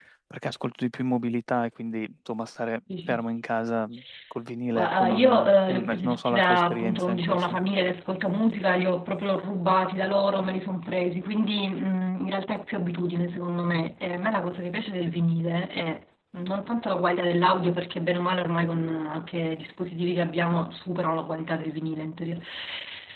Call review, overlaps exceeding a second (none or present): present